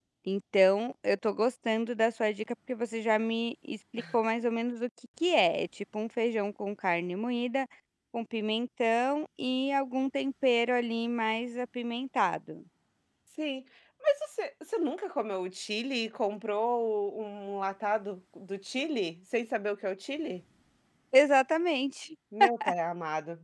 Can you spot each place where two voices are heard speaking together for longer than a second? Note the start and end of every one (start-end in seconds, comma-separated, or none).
none